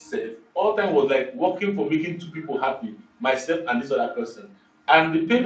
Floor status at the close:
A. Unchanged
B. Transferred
A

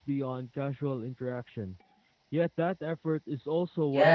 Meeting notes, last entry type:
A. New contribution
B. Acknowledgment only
A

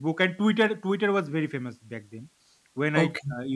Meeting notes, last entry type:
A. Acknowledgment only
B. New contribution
A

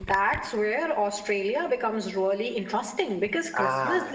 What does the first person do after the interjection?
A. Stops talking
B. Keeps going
B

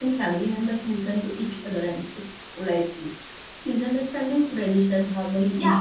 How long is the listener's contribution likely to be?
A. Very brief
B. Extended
B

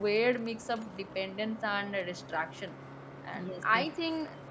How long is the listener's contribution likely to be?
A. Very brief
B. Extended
A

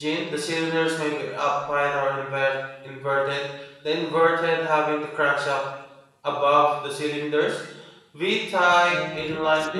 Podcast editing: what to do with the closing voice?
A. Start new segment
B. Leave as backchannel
A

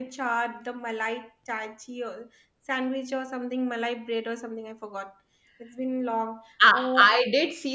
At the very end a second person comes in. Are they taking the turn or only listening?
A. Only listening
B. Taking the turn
B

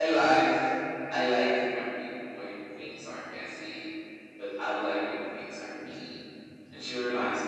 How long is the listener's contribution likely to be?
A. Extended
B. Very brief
B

